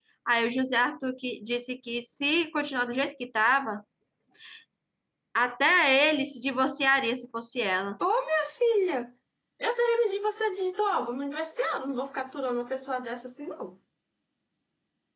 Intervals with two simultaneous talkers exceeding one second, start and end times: none

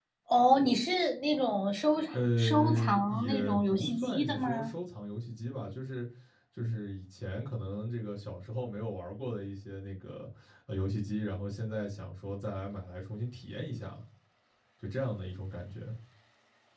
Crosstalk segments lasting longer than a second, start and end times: 2.1-4.7

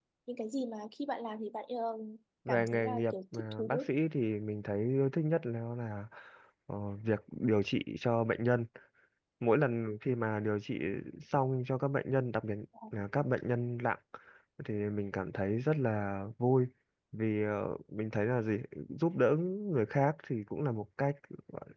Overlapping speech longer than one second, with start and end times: 2.5-3.9

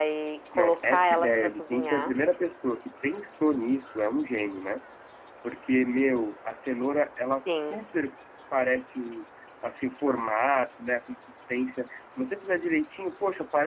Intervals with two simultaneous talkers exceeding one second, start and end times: 0.5-2.2

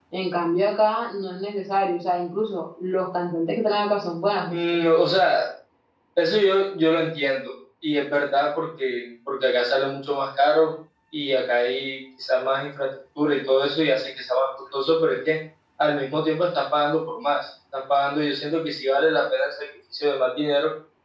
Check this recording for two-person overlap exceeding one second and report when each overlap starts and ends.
none

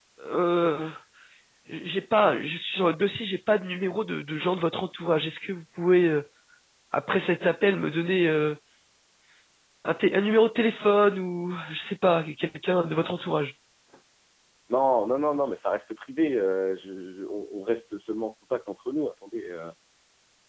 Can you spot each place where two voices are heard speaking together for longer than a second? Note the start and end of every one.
none

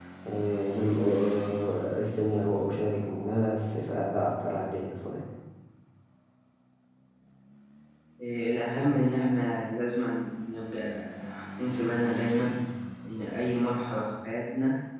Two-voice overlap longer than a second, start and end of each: none

